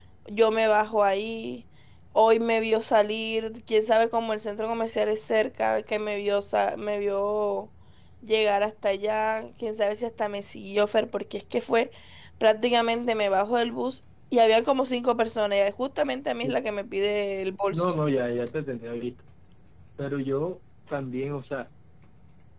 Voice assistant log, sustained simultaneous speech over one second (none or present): none